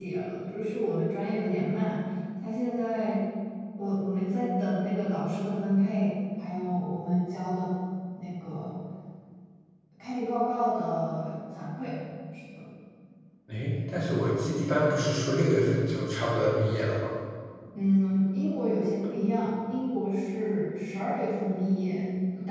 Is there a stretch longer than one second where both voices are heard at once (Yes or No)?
No